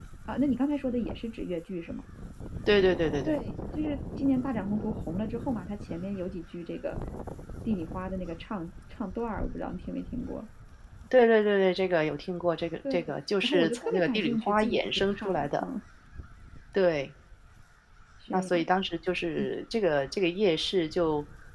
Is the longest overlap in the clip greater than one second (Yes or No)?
Yes